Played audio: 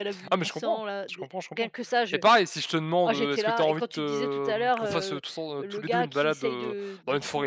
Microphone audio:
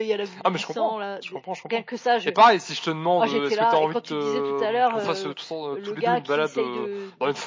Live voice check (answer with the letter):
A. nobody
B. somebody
A